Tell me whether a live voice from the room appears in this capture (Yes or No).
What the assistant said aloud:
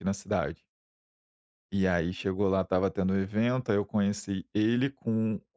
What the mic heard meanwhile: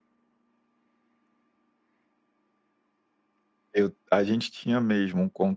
Yes